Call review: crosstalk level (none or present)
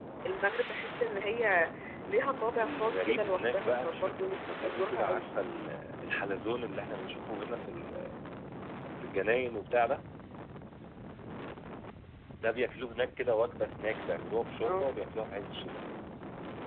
present